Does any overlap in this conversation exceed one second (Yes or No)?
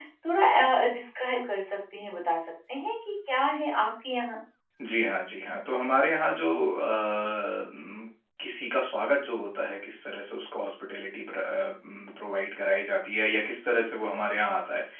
No